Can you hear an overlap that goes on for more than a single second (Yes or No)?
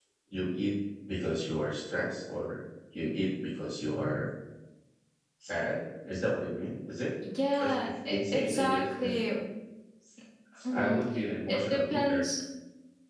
Yes